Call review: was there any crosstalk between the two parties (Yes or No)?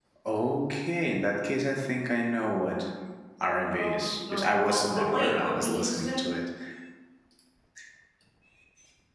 Yes